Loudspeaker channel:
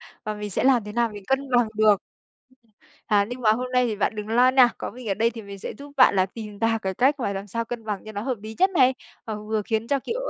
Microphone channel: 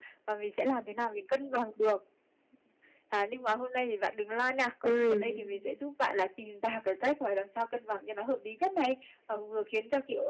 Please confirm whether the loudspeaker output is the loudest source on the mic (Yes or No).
No